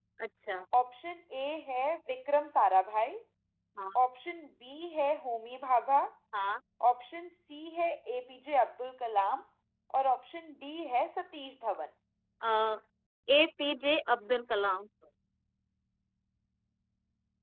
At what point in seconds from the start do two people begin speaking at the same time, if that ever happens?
none

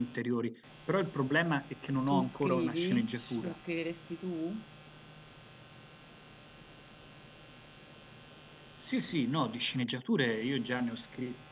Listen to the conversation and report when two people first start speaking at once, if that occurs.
2.1 s

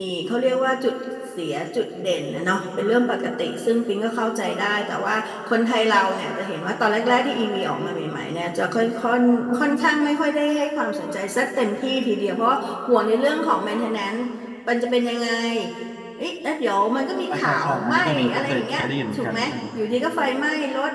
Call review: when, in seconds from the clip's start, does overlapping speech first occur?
17.3 s

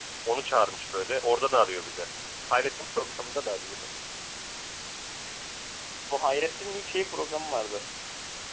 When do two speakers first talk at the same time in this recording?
none

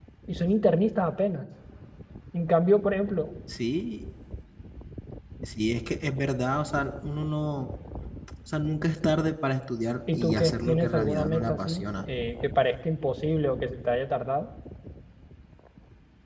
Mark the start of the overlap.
10.1 s

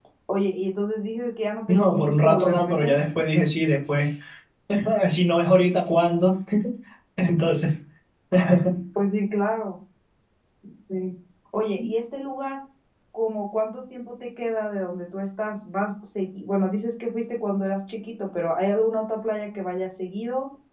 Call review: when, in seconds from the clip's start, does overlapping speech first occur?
1.7 s

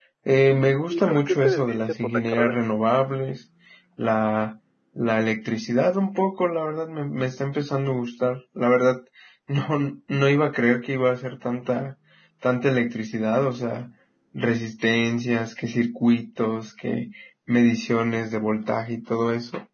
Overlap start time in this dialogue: 0.9 s

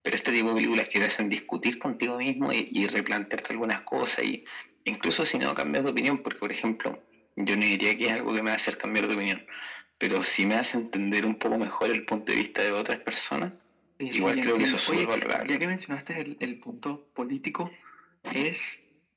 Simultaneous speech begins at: 14.1 s

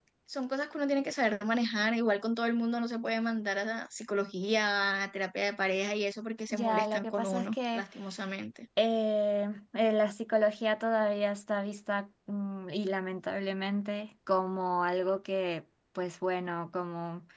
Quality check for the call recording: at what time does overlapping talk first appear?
6.5 s

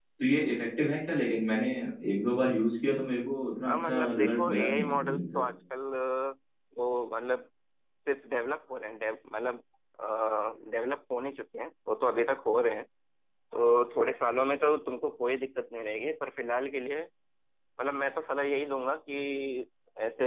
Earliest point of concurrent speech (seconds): 3.6 s

